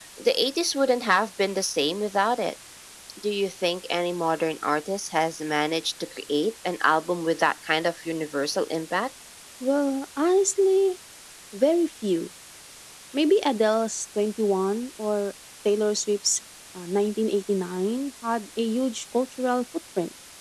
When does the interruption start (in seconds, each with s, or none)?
none